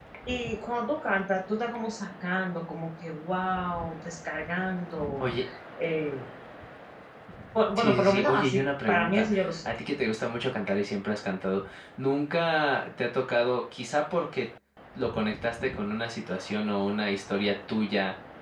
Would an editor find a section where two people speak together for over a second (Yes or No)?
Yes